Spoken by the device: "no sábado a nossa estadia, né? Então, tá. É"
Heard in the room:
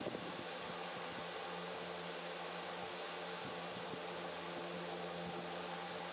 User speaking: No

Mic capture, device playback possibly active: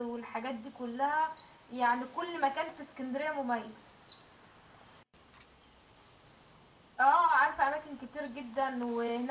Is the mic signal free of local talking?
Yes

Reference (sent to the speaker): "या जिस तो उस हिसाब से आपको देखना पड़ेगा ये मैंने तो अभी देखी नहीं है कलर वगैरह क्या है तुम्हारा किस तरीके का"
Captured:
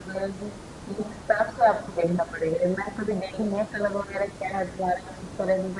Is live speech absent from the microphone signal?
Yes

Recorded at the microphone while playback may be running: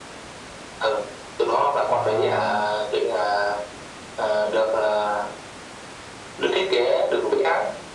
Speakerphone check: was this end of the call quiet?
No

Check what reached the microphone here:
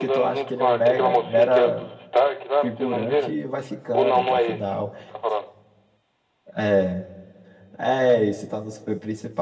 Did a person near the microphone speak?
Yes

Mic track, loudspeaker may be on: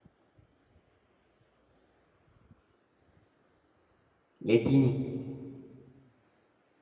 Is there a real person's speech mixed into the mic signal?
Yes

